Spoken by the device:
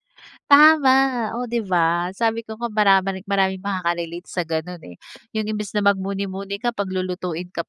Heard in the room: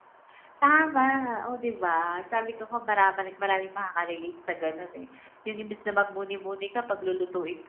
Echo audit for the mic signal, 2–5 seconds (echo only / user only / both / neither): echo only